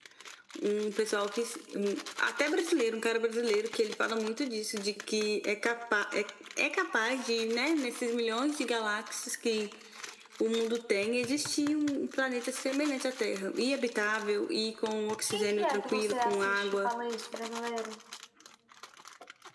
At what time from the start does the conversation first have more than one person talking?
15 s

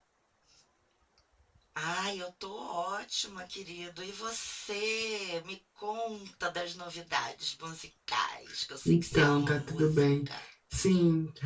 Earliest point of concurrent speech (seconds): 9 s

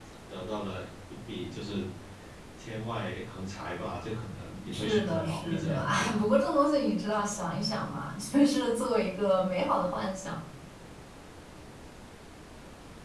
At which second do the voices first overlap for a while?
5 s

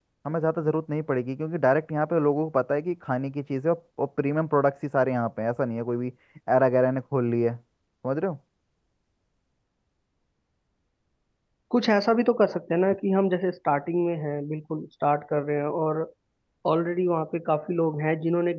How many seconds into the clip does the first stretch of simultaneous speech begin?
none

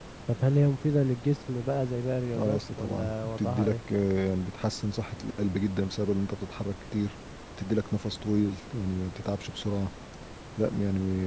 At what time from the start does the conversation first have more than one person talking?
2 s

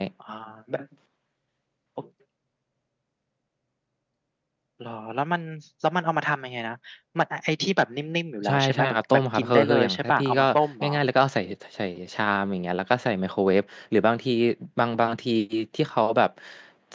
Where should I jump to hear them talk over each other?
8 s

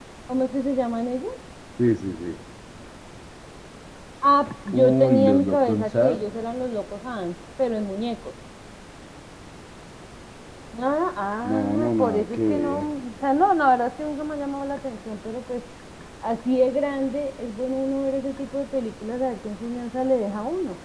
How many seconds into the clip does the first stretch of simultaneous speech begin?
5 s

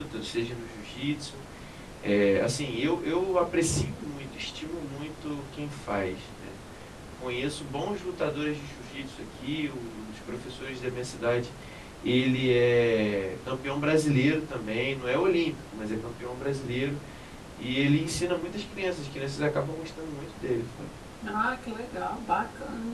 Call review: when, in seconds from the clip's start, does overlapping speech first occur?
none

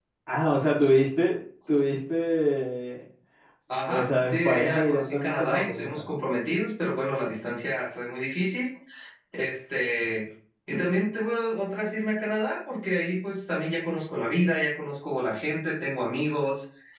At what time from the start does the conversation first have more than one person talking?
4 s

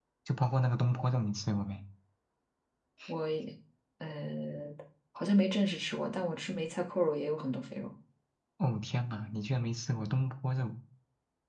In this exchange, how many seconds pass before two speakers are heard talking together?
none

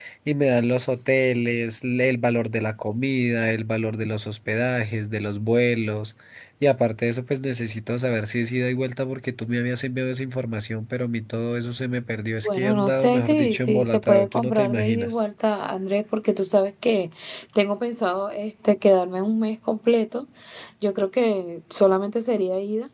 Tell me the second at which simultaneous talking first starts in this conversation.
12 s

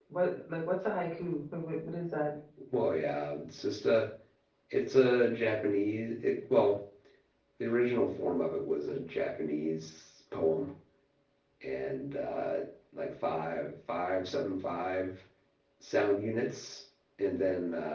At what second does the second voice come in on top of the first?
none

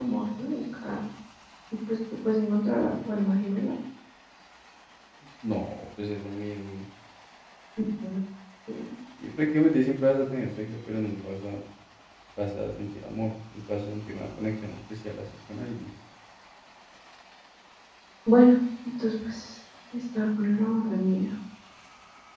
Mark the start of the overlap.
none

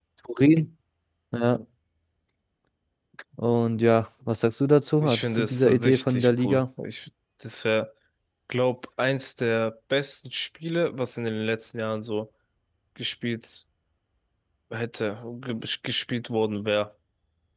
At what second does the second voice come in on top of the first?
5 s

